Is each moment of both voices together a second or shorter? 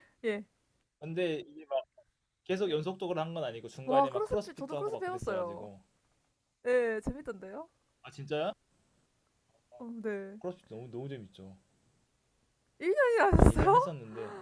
No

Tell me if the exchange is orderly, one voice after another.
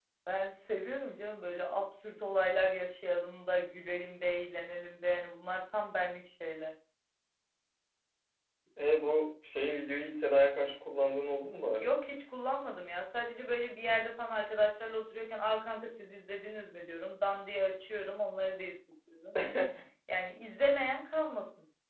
Yes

